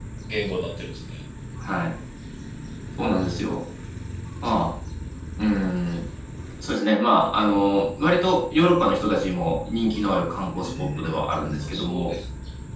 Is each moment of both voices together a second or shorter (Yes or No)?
No